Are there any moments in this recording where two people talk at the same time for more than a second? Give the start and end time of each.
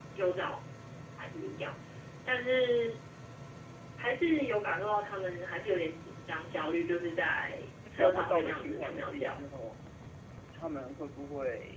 8.0-9.4

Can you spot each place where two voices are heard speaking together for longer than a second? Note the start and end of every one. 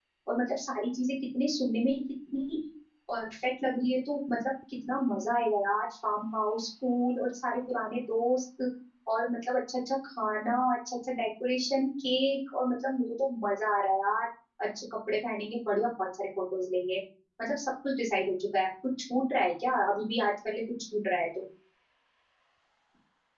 none

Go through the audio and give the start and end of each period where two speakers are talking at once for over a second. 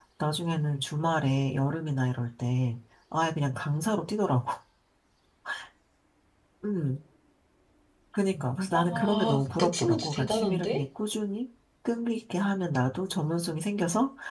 8.7-10.8

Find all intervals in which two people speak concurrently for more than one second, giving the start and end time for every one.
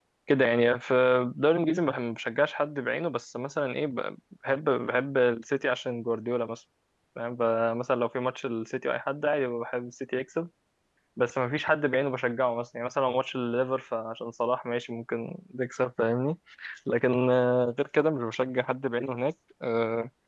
none

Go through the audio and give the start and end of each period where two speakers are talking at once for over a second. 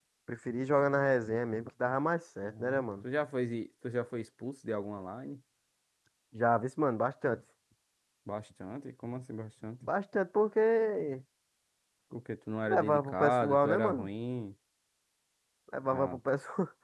12.7-14.1

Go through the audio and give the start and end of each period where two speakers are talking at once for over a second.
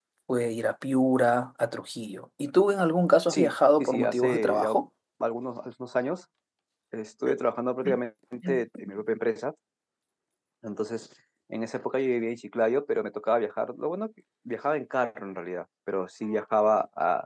3.3-4.7

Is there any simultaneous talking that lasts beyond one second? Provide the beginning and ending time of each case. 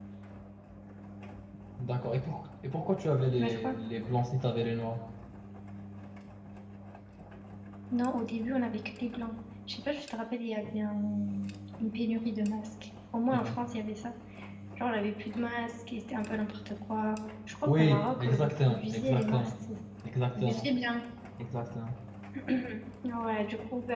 17.6-19.5

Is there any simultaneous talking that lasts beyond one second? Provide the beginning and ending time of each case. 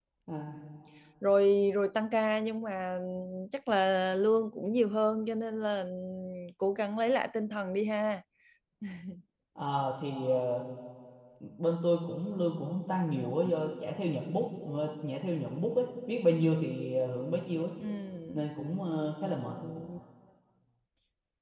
none

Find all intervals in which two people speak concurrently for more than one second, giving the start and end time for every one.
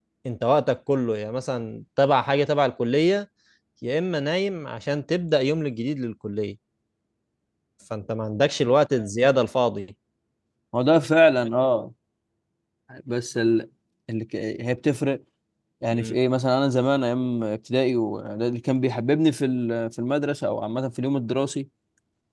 none

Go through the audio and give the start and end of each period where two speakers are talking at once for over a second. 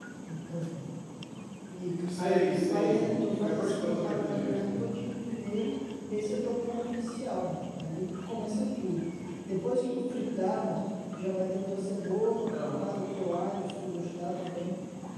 2.2-4.8

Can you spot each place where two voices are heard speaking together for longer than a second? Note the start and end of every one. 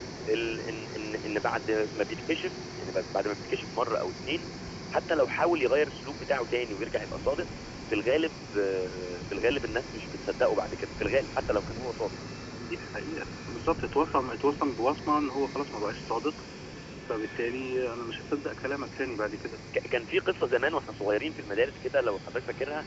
none

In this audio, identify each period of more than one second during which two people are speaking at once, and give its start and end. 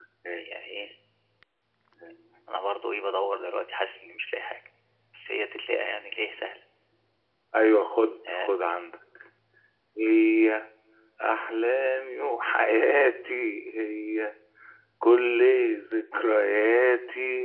none

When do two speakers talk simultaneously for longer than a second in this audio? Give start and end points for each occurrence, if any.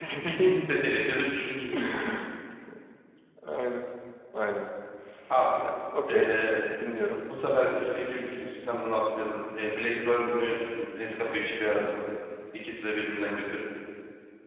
none

